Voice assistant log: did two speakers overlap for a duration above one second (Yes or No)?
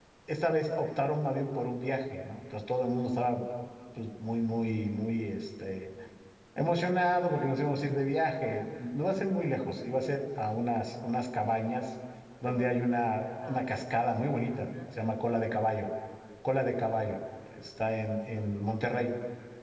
No